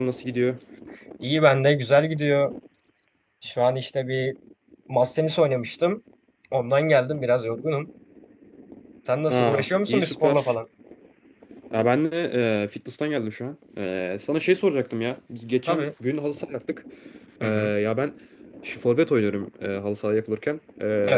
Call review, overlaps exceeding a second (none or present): present